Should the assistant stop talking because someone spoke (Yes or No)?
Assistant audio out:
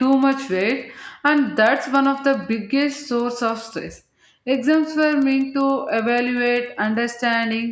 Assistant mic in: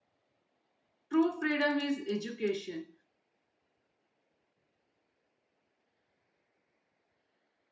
Yes